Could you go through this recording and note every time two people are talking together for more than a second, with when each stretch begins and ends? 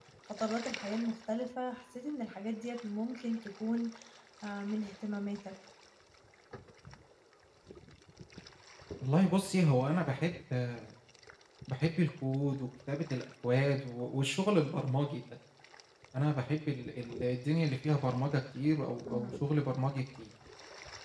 none

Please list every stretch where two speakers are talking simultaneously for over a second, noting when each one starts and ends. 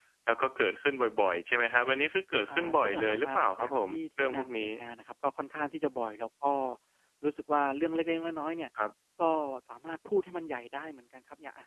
2.5-4.7

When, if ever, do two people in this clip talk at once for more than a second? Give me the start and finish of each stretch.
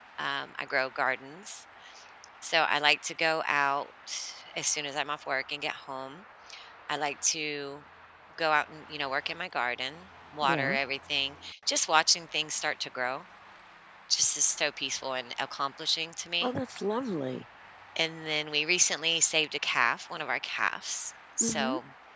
none

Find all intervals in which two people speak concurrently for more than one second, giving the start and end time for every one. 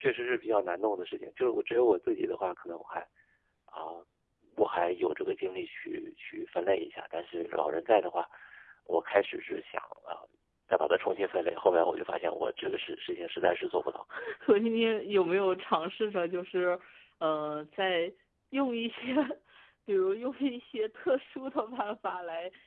none

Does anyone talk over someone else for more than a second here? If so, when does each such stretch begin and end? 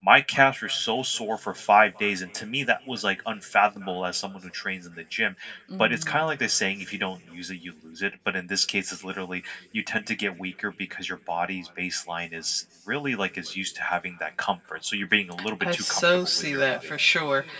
15.6-16.9

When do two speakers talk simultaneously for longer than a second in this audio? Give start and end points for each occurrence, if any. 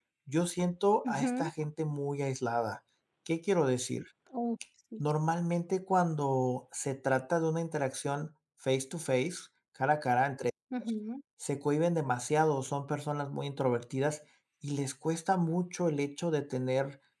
none

